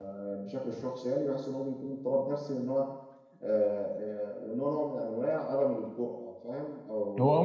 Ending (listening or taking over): taking over